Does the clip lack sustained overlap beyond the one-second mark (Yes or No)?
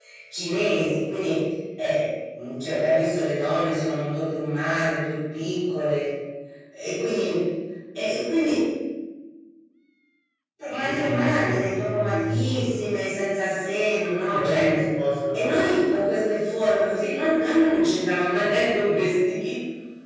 No